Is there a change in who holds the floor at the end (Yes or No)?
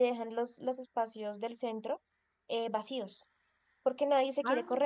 No